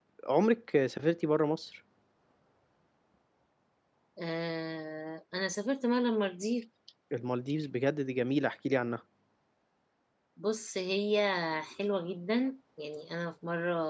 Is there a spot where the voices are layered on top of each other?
No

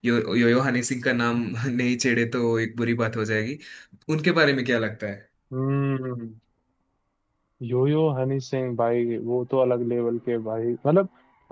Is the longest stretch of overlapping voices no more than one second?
Yes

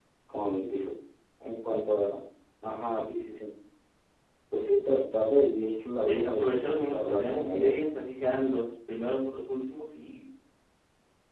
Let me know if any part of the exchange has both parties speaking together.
Yes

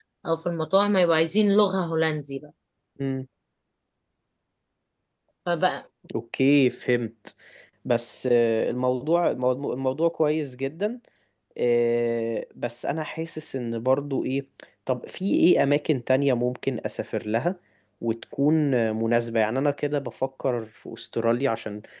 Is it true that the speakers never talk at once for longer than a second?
Yes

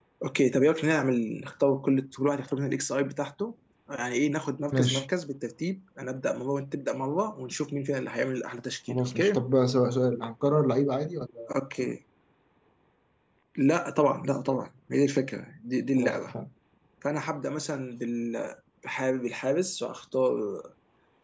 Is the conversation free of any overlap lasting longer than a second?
Yes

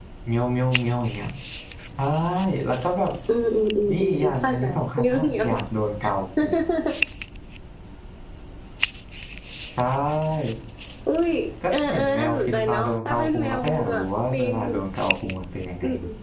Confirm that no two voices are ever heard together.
No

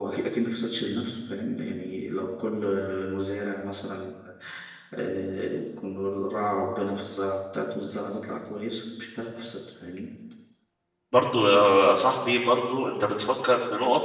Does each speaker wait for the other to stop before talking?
Yes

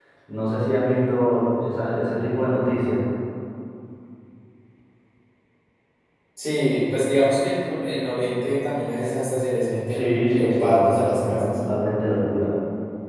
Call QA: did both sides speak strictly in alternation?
No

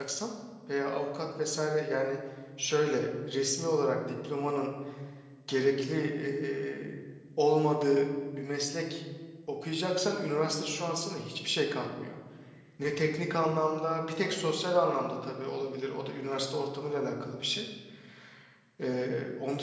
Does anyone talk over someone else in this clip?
No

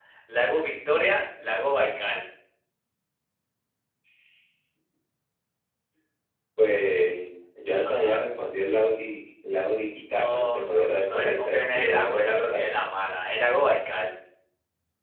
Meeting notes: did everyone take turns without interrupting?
No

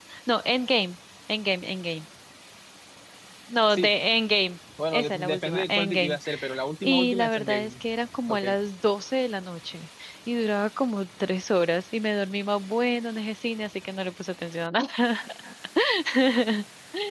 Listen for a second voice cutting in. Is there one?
Yes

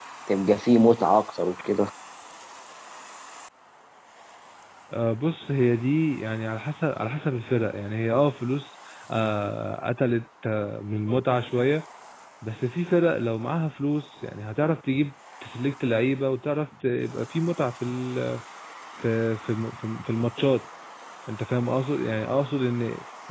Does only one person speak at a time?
Yes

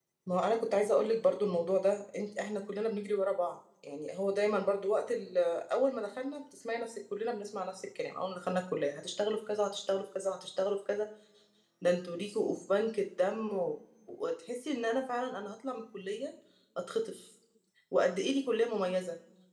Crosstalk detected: No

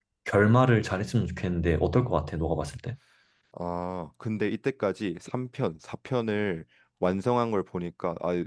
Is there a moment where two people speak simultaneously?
No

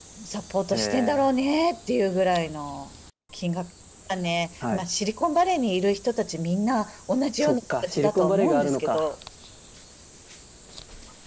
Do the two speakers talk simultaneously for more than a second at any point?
Yes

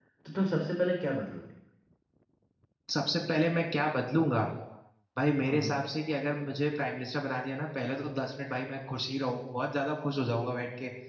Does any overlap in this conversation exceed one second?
No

